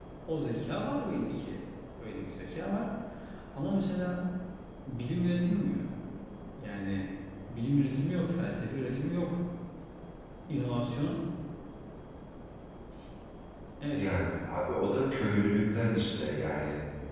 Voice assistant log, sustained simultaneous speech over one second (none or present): none